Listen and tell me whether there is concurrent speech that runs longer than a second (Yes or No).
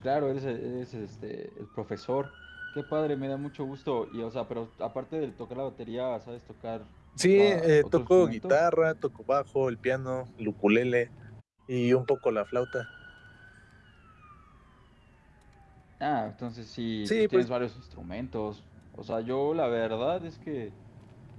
Yes